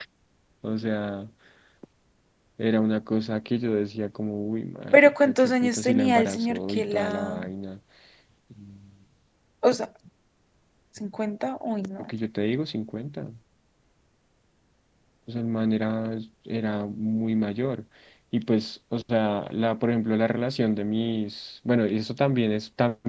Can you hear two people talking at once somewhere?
Yes, from 4.9 s

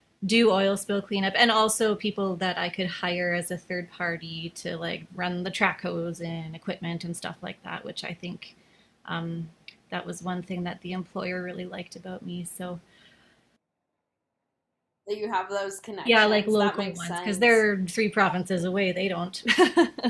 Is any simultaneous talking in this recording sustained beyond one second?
Yes, from 16.1 s

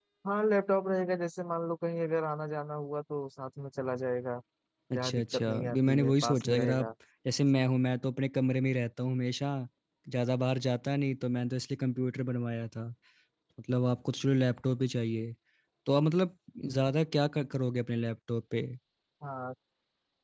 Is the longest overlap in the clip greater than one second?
Yes, from 5.0 s

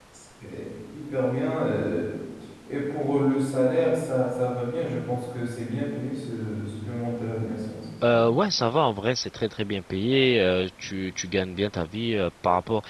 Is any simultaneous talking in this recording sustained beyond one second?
No

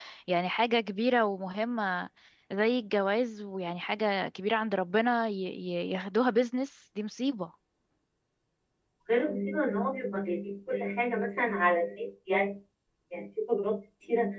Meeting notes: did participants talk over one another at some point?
No

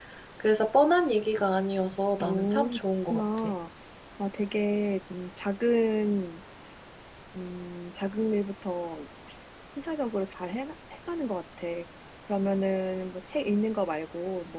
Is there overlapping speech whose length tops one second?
Yes, from 2.2 s

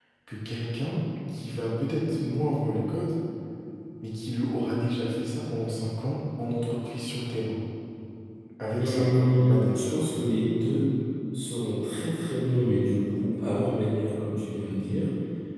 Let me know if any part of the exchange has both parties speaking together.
Yes, from 8.8 s

